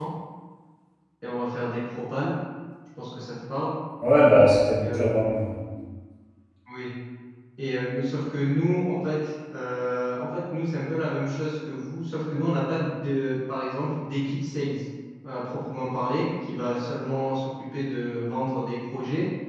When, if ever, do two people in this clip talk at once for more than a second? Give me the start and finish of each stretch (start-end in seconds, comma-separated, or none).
none